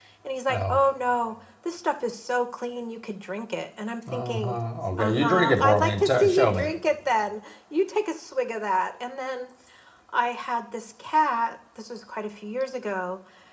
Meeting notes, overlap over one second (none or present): present